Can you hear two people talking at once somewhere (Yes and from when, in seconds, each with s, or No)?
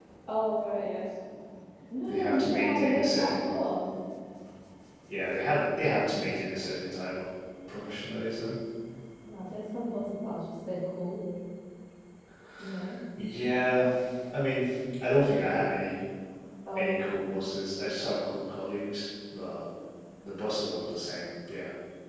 Yes, from 2.1 s